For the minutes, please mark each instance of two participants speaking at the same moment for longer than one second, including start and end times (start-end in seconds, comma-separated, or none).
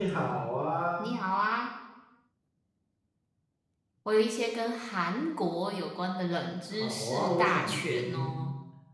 6.8-8.4